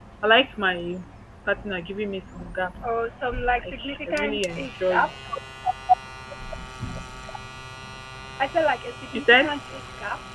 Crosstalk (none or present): present